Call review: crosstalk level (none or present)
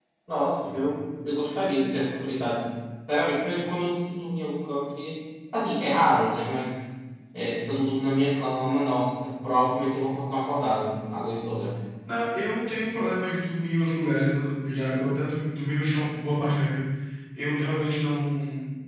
none